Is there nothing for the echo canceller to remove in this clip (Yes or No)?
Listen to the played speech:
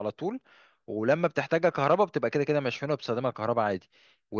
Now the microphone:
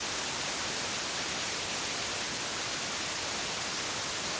Yes